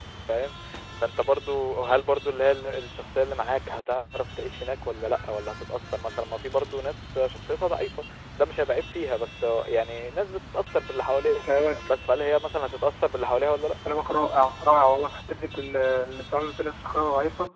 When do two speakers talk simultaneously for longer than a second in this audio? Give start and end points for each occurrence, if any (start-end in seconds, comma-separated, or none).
none